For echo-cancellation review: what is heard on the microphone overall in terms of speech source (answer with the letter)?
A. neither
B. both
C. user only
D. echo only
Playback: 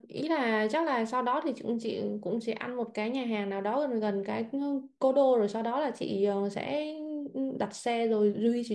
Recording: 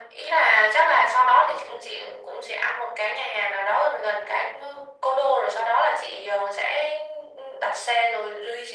D